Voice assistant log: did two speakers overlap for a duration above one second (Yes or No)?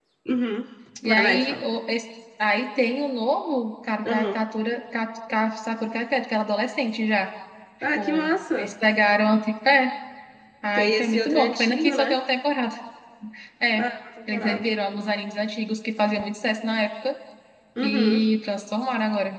Yes